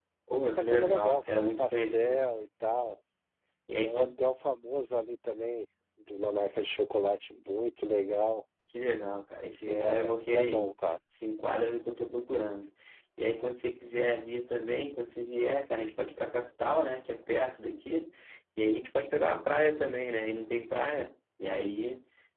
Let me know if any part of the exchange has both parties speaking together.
Yes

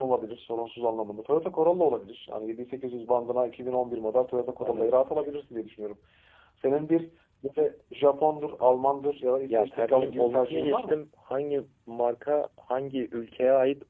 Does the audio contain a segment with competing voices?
Yes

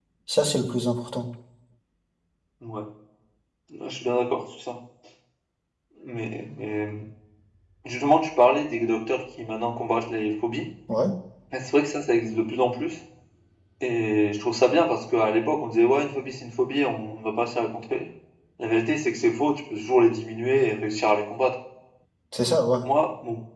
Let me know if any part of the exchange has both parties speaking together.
No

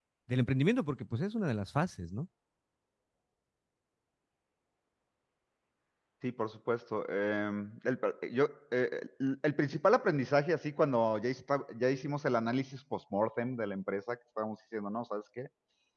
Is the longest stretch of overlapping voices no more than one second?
Yes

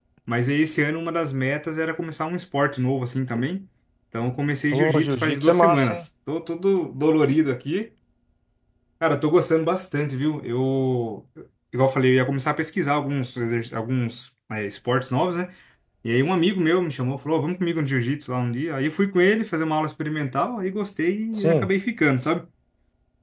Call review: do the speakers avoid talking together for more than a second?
No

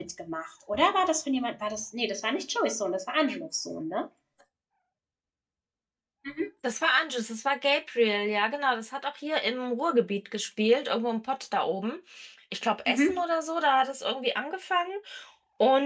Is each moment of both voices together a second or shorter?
Yes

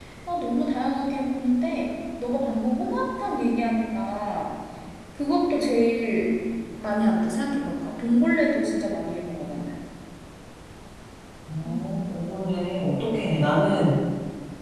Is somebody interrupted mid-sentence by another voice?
No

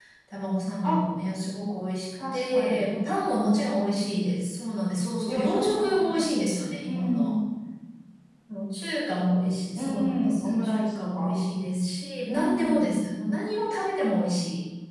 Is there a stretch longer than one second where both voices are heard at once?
Yes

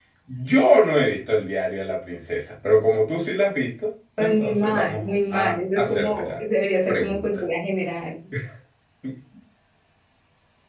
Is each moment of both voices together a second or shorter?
No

